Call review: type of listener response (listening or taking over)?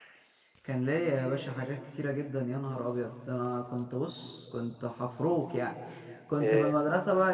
listening